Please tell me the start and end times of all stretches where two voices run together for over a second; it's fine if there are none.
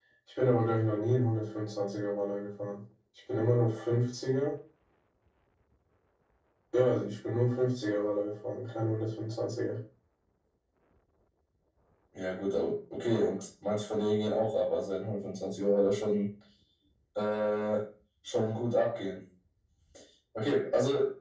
none

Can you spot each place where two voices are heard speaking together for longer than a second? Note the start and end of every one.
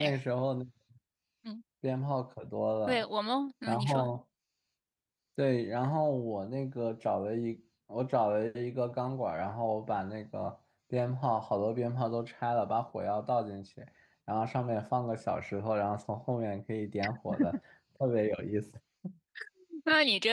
none

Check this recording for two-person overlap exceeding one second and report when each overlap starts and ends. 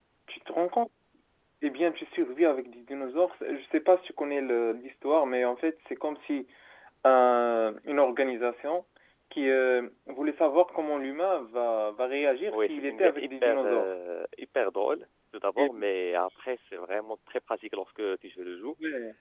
12.5-13.9

